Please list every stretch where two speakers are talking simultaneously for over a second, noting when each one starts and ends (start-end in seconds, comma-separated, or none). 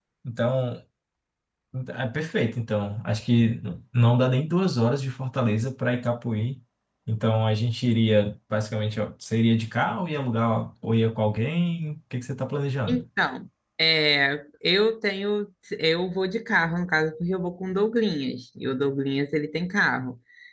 none